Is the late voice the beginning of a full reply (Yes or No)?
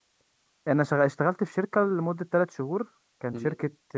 No